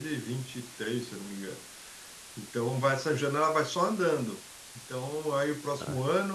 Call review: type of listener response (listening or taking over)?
listening